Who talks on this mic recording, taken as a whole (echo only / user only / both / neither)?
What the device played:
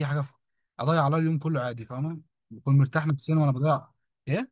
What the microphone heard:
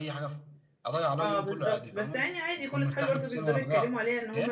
both